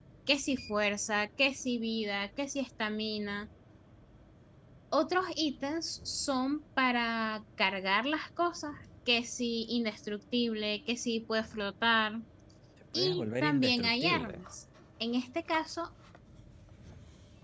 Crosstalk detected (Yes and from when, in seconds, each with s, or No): Yes, from 12.9 s